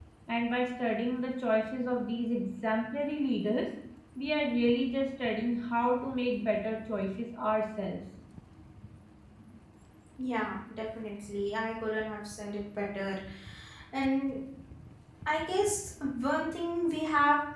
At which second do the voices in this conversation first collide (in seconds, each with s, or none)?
none